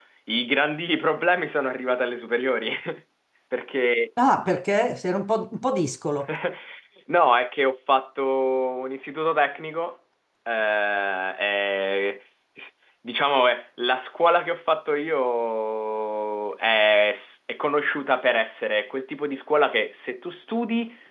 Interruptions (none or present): none